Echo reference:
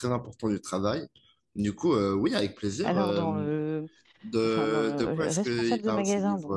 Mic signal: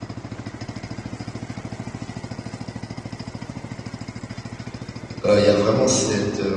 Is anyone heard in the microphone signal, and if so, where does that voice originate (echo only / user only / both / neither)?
user only